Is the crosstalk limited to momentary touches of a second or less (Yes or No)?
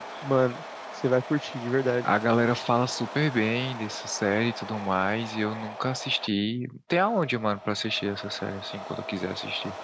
Yes